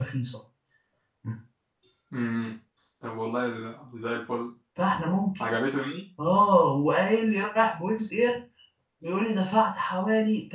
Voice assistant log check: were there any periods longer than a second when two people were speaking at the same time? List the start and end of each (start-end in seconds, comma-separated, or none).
none